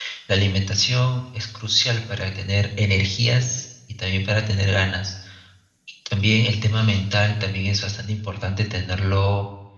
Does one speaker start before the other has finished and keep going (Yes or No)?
No